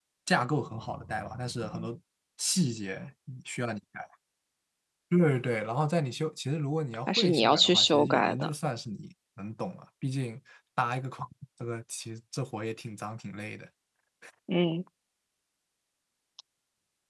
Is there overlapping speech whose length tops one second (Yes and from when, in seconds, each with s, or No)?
Yes, from 7.1 s